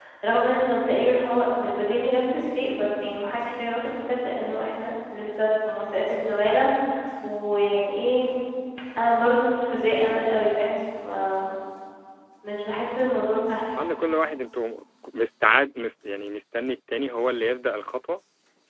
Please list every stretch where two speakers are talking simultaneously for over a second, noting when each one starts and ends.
none

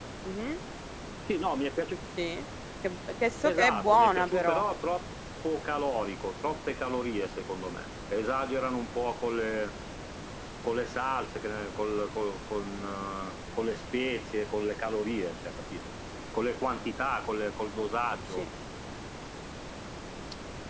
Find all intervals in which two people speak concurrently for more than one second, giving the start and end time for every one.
3.4-4.6

